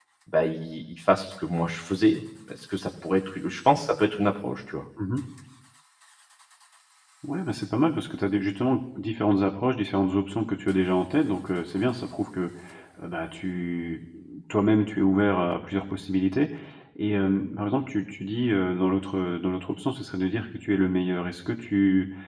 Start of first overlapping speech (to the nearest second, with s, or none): none